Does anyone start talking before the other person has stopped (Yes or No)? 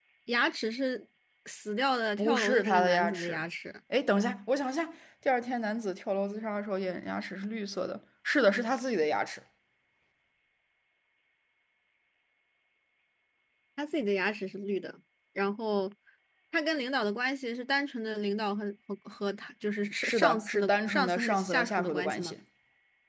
Yes